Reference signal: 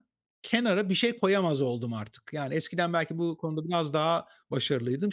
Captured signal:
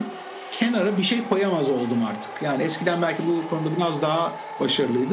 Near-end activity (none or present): none